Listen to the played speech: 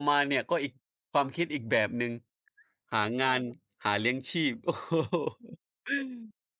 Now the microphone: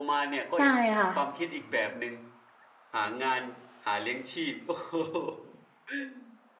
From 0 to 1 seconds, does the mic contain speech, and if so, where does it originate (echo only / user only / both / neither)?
both